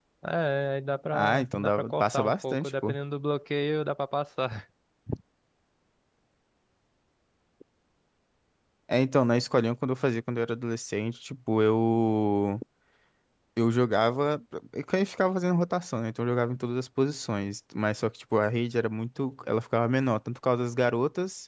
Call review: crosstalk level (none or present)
present